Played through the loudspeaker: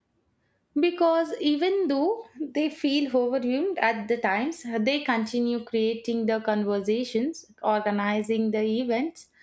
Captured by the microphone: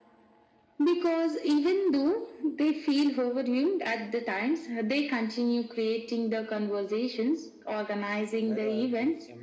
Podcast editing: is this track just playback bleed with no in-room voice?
No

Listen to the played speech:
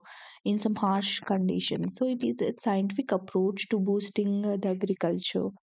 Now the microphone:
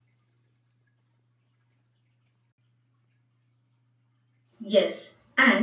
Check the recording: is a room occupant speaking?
Yes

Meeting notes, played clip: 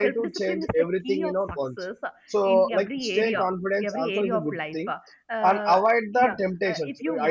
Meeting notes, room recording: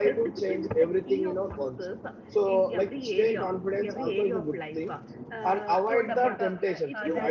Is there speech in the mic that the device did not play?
Yes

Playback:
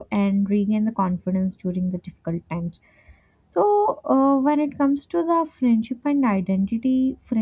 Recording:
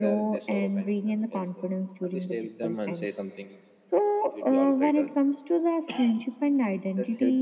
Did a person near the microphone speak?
Yes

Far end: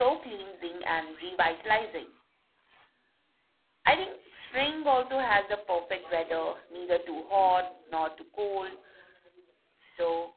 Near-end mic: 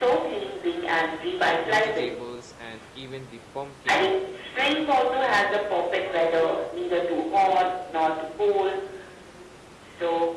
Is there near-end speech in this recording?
Yes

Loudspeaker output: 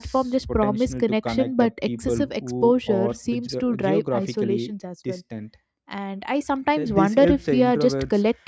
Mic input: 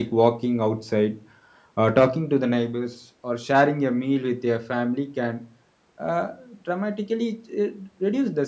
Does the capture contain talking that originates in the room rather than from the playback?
Yes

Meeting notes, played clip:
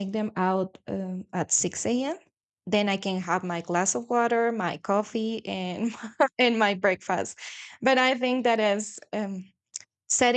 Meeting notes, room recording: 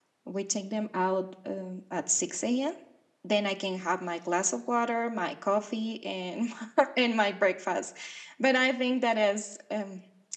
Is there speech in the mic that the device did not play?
No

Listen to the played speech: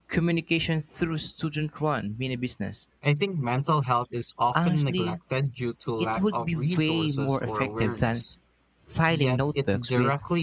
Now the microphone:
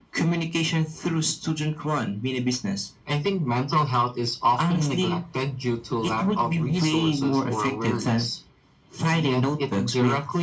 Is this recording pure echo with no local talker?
Yes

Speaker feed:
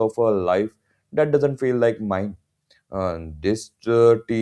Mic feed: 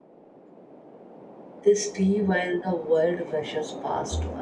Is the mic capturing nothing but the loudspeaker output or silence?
No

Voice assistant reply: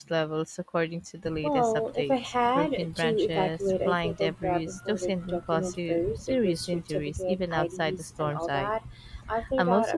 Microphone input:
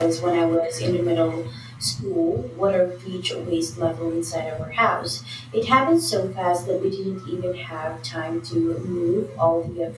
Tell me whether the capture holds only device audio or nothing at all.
No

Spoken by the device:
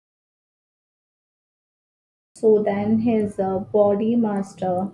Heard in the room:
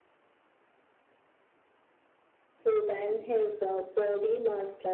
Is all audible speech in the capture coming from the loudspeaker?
Yes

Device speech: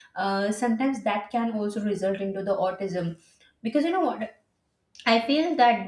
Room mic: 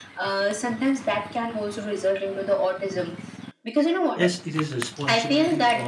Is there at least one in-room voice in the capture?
Yes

